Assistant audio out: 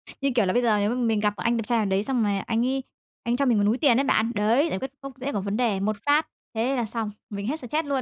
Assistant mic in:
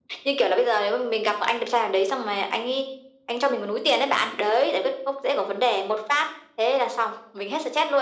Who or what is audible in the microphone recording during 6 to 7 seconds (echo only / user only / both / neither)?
echo only